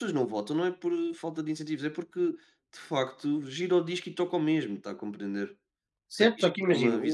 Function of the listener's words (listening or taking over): taking over